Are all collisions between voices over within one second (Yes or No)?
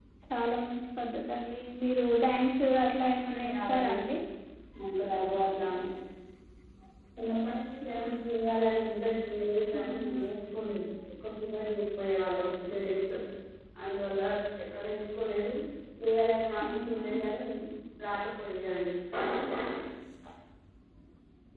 No